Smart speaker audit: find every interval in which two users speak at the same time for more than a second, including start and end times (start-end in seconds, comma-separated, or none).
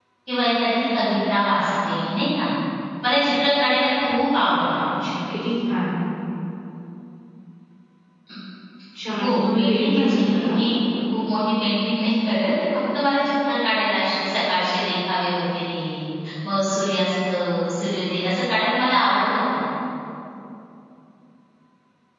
9.2-10.6